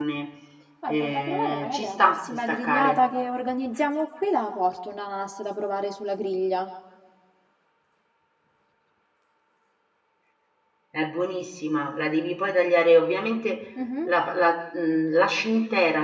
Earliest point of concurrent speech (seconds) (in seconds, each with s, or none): 0.9 s